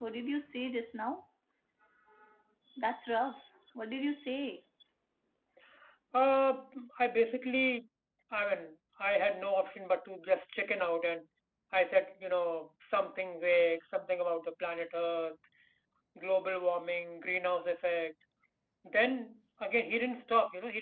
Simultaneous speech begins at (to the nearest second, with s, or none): none